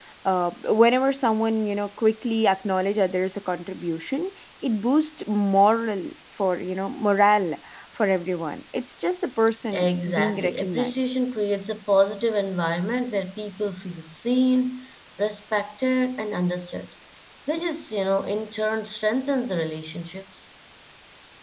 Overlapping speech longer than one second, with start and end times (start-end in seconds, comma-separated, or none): 9.7-11.2